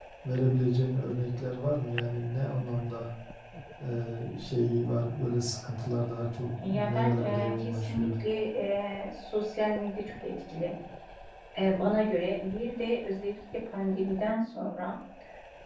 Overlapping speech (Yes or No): Yes